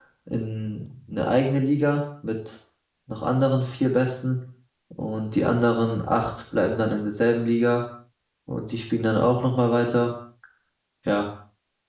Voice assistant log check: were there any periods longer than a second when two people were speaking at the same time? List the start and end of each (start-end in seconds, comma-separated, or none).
none